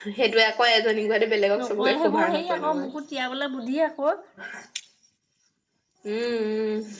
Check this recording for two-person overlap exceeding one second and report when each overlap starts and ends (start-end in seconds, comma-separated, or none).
1.6-2.9